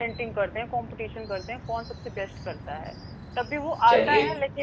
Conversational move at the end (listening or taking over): listening